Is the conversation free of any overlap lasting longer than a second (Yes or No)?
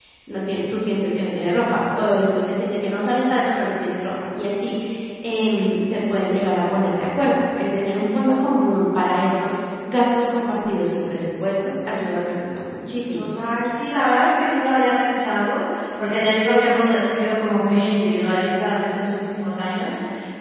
Yes